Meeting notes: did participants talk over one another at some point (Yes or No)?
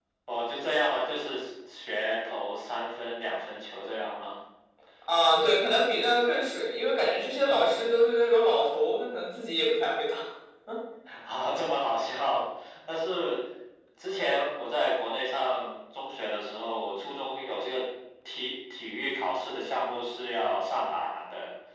No